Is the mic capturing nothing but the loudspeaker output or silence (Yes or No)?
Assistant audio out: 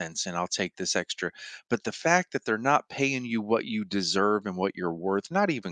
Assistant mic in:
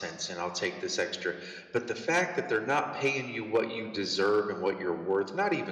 Yes